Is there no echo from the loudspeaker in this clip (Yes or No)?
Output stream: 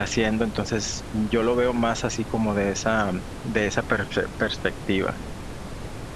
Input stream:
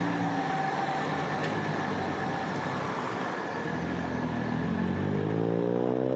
Yes